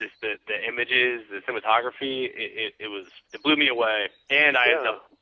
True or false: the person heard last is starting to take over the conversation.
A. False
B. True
A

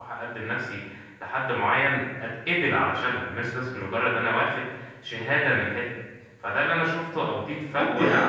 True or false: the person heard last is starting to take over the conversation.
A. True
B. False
A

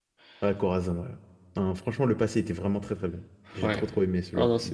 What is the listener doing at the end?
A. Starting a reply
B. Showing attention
A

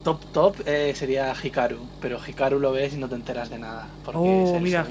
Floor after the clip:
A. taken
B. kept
A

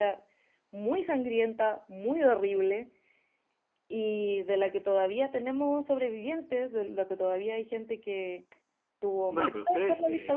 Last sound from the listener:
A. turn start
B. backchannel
A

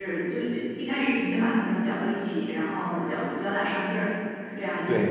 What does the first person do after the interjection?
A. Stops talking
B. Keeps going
A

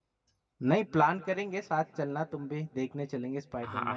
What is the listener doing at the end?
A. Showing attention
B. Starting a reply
B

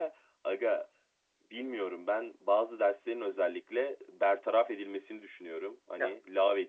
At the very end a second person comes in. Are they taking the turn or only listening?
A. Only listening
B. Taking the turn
A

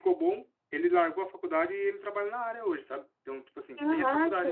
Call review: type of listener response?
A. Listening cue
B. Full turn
A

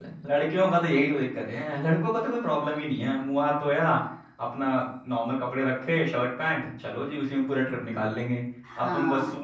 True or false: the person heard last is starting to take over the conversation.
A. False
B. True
A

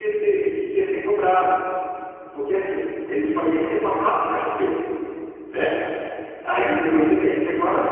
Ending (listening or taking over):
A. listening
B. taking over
A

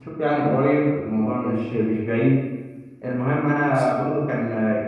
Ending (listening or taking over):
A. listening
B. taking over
A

